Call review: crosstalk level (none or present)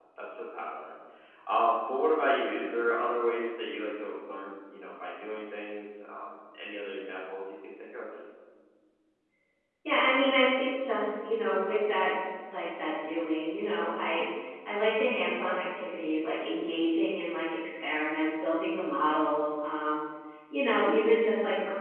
none